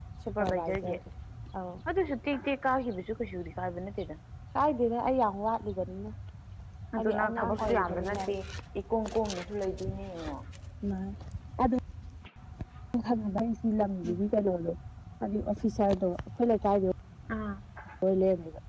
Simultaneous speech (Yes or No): Yes